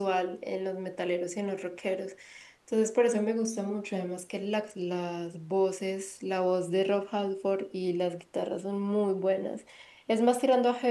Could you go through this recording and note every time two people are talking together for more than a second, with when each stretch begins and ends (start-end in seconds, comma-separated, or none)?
none